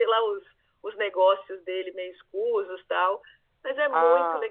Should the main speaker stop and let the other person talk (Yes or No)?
Yes